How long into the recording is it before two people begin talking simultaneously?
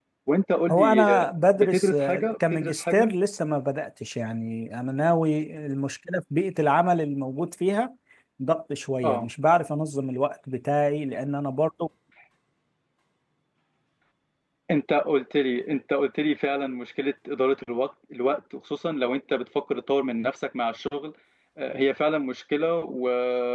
0.7 s

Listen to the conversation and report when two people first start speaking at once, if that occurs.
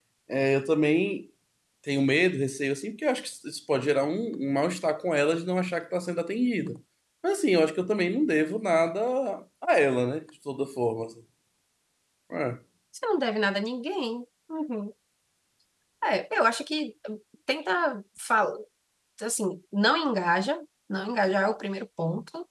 none

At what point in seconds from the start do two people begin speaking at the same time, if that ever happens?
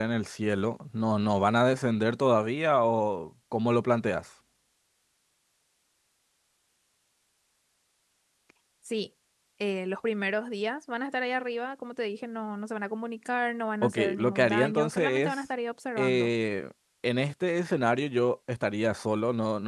13.8 s

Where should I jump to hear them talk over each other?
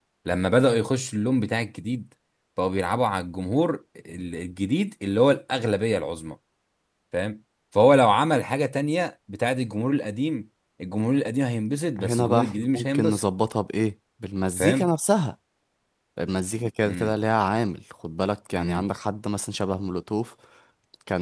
12.0 s

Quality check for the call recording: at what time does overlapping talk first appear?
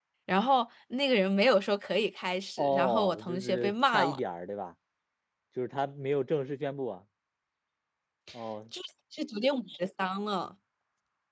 2.6 s

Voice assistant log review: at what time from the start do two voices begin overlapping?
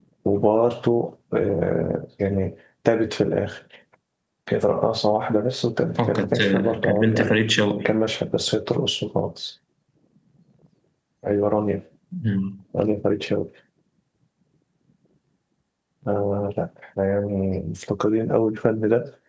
6.0 s

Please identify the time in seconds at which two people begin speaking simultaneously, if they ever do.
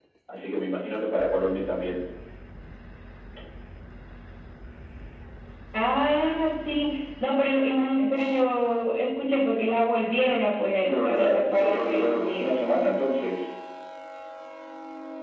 10.8 s

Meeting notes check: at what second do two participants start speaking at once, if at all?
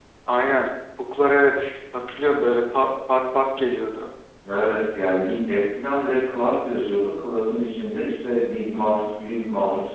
none

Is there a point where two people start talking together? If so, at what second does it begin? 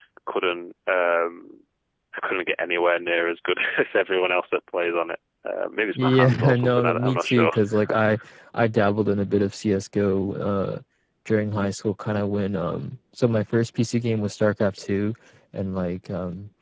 5.9 s

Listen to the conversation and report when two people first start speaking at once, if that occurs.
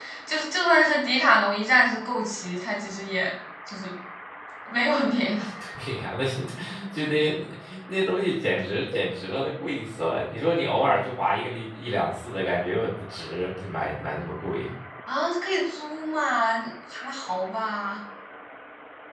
none

